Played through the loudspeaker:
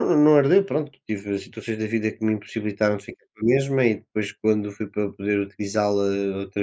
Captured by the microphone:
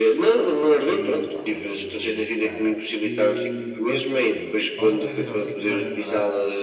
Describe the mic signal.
both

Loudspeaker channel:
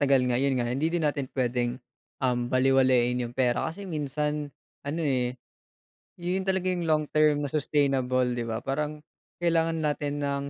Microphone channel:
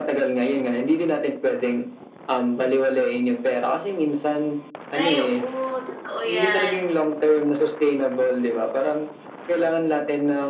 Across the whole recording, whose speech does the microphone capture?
both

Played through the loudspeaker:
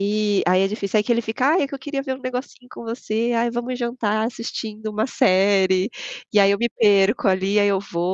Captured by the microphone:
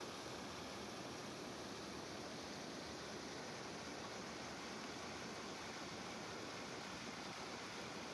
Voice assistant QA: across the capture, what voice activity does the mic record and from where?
neither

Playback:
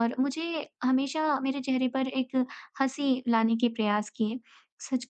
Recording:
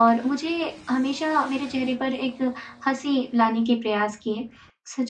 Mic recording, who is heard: echo only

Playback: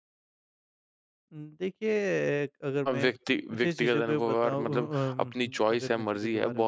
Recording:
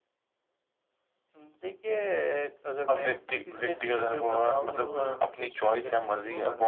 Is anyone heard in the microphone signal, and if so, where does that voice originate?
both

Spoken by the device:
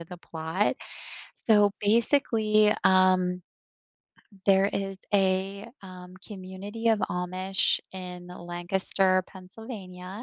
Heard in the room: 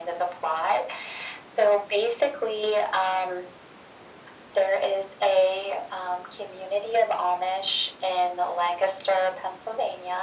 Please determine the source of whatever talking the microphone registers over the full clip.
echo only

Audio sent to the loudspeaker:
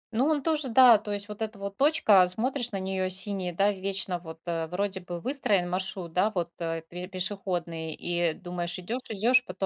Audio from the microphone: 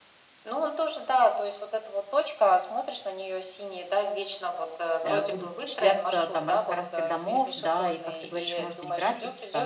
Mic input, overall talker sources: both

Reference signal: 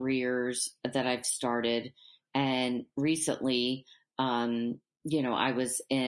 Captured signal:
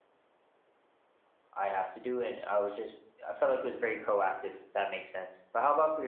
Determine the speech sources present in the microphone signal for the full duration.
user only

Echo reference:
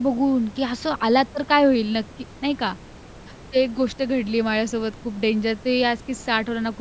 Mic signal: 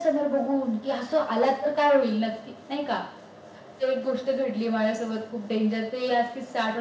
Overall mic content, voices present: echo only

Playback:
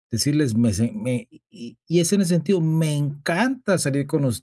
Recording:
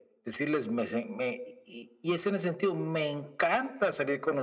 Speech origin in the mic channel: echo only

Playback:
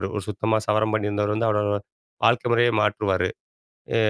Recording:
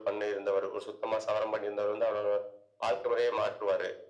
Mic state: echo only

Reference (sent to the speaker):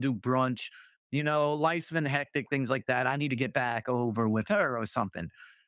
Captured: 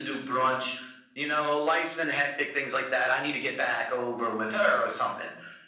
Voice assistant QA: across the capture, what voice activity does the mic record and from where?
echo only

